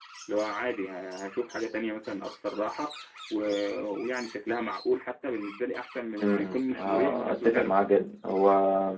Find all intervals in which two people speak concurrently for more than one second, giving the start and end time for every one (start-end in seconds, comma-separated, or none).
6.2-7.7